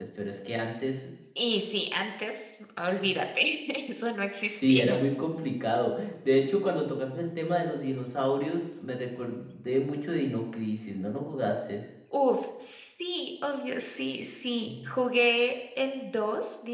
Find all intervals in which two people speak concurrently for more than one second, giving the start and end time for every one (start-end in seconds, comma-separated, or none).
none